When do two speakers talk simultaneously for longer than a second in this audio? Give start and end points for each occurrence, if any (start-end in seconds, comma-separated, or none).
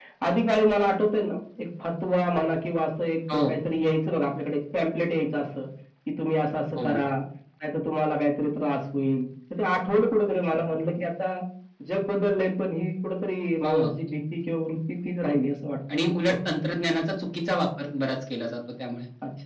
none